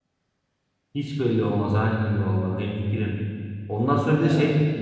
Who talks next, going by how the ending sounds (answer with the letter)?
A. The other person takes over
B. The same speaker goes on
B